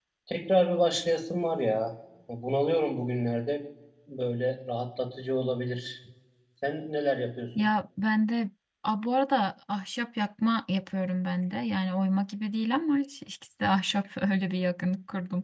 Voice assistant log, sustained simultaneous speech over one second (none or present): none